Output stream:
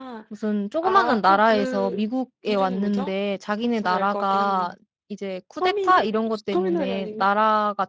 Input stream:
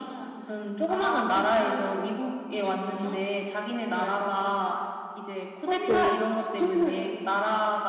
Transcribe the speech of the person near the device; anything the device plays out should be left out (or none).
네.